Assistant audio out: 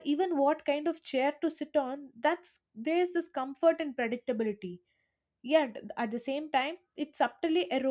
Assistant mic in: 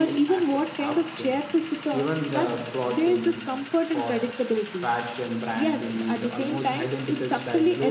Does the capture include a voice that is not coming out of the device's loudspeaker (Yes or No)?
Yes